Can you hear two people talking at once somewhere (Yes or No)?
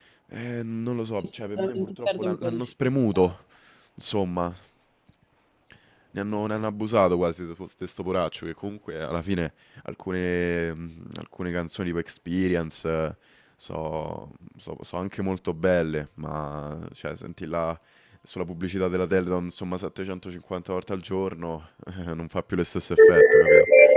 Yes